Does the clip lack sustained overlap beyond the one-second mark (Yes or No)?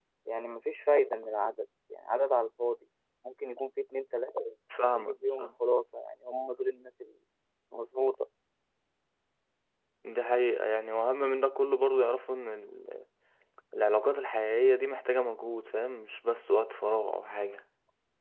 Yes